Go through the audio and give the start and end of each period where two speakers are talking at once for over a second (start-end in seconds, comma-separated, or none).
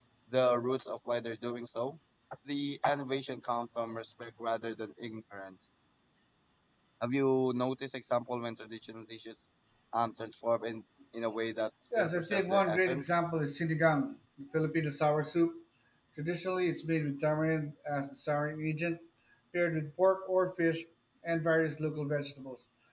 12.0-13.2